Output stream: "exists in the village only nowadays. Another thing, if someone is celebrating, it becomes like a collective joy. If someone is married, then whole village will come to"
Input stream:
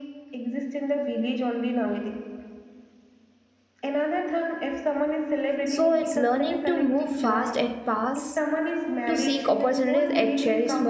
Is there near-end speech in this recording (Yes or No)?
Yes